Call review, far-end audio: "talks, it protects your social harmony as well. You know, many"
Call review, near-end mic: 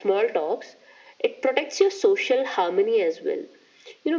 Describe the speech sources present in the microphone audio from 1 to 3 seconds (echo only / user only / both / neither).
echo only